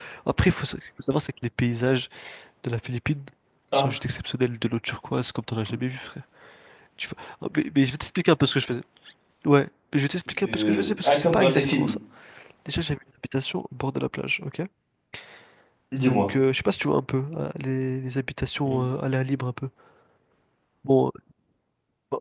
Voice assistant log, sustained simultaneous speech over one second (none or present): present